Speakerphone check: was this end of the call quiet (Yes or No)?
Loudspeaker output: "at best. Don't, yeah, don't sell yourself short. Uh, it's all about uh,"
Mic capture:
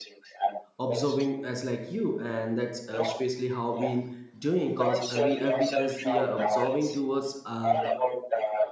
No